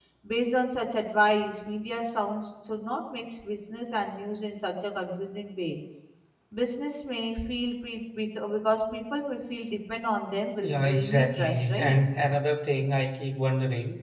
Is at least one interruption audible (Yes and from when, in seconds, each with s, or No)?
Yes, from 10.6 s